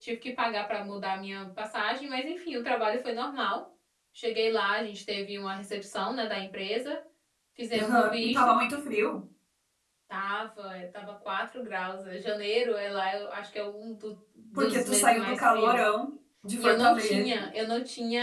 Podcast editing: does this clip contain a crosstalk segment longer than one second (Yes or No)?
Yes